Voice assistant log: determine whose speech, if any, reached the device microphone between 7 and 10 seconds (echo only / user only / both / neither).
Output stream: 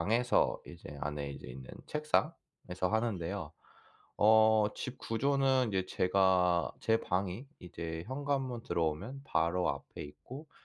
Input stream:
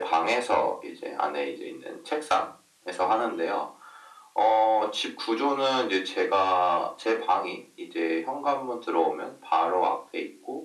echo only